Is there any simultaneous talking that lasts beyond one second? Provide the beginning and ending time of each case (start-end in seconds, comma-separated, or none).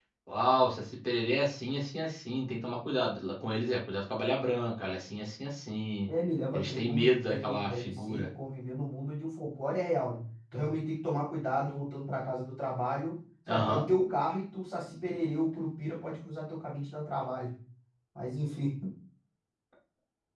6.5-8.3